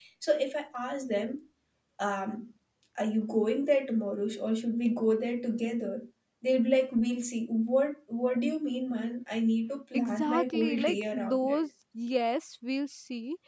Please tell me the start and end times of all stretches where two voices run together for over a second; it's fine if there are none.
9.9-11.7

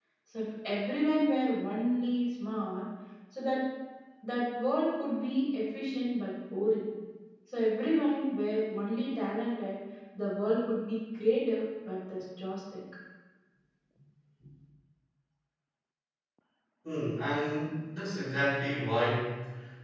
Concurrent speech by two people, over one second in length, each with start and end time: none

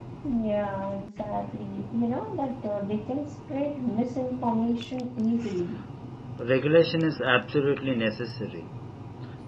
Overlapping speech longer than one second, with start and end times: none

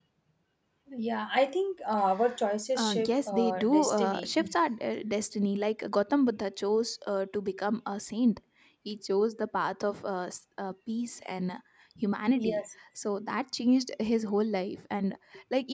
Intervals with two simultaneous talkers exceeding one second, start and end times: 2.8-4.3

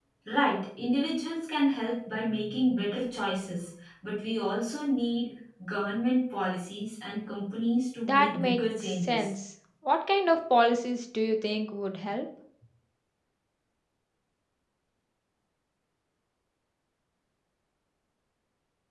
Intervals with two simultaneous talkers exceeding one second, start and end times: 8.0-9.3

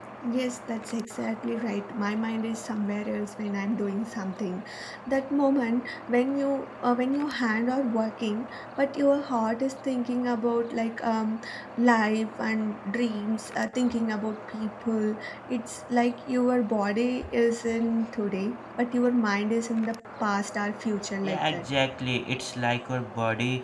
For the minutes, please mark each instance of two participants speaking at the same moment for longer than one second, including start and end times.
none

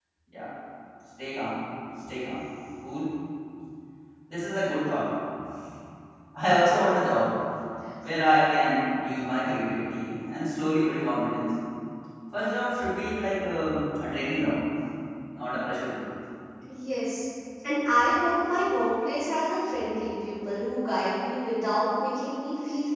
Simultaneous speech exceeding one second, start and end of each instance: none

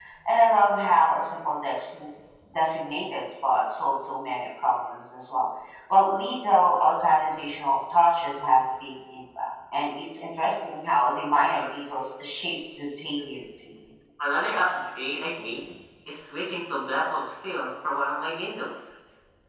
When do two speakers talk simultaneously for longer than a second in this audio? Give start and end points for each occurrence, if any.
none

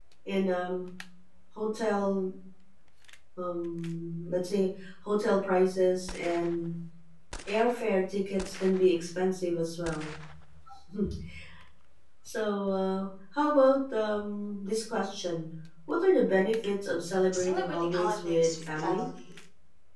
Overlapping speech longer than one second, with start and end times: 17.3-19.1

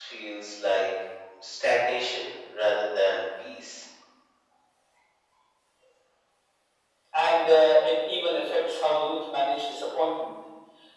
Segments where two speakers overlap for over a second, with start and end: none

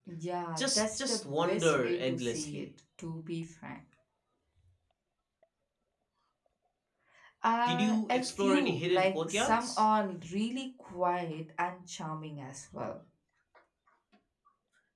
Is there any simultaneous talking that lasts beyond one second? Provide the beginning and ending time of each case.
0.6-2.6, 7.7-9.8

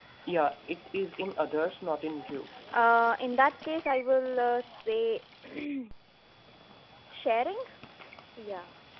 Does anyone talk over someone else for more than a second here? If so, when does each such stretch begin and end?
none

